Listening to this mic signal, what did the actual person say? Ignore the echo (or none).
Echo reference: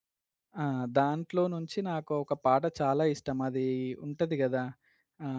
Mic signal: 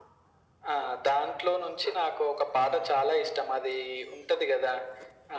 none